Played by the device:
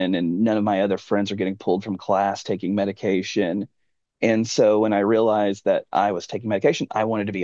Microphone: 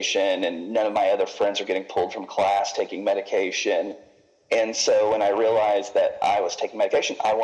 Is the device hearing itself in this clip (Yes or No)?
Yes